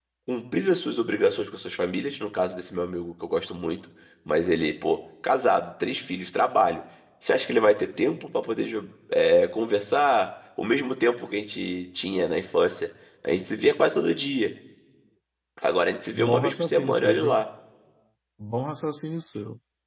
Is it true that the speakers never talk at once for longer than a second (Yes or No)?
No